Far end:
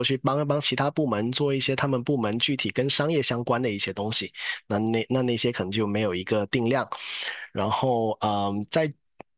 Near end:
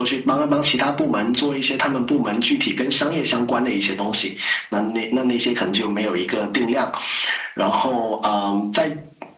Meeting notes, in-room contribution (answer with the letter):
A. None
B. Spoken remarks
A